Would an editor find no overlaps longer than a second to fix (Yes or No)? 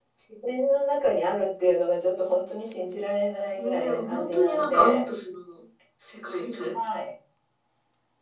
No